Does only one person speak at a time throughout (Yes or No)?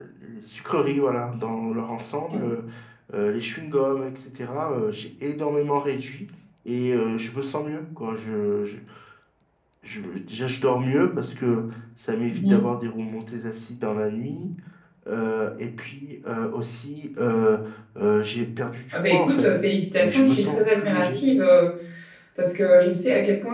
No